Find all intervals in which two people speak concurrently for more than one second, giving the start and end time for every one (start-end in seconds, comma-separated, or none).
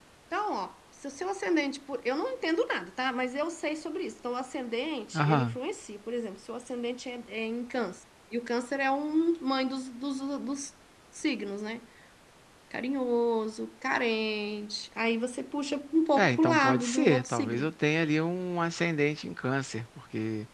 16.2-17.7